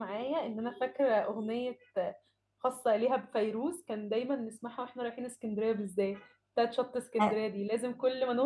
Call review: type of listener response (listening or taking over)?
listening